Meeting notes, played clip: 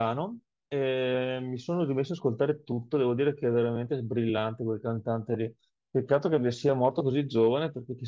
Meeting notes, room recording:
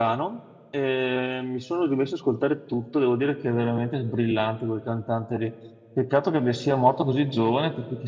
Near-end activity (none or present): none